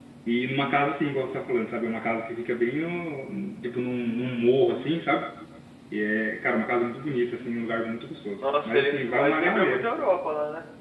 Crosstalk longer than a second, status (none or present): present